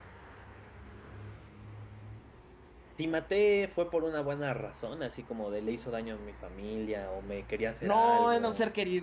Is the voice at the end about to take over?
Yes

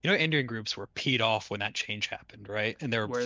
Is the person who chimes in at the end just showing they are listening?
Yes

